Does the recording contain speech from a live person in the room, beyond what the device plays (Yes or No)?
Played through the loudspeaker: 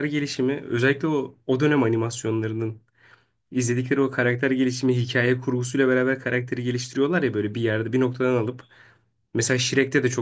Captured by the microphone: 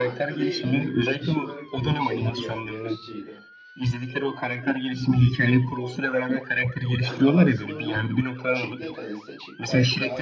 Yes